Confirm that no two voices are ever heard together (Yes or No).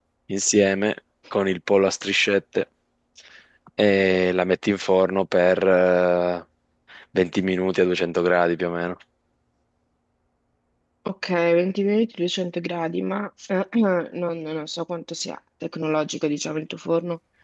Yes